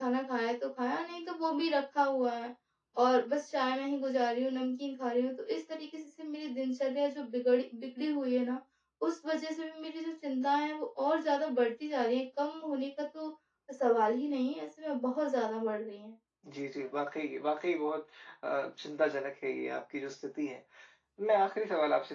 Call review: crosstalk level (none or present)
none